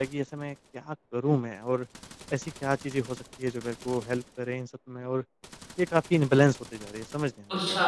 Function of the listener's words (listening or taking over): taking over